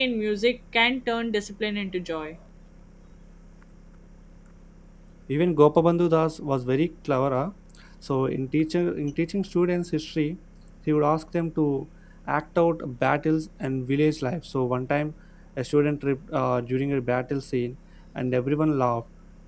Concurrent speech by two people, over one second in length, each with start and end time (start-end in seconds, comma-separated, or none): none